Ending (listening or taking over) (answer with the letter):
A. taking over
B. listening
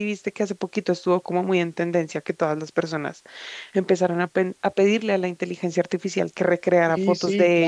A